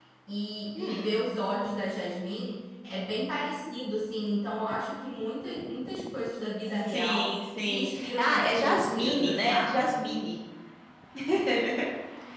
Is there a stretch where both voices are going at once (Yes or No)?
Yes